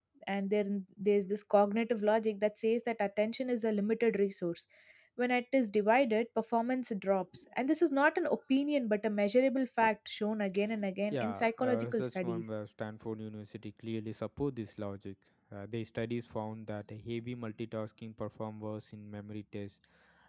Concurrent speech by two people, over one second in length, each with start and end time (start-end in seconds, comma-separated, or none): 11.1-12.4